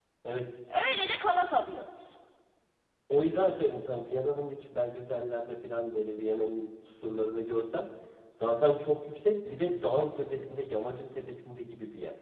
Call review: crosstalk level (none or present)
none